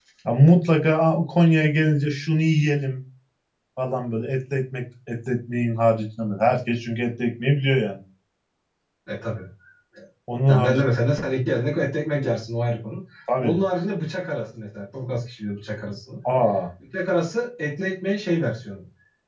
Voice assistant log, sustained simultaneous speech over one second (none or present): none